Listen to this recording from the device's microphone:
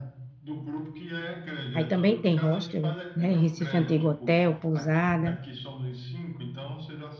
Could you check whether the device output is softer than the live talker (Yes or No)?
Yes